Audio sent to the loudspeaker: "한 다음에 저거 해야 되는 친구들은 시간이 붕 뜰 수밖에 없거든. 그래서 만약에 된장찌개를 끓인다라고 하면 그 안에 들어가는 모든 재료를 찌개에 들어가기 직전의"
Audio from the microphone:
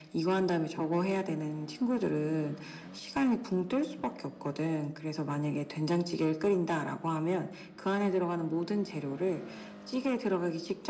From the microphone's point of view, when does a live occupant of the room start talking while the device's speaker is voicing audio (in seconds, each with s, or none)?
none